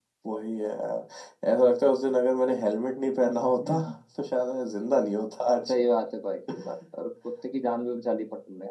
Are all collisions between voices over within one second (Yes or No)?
Yes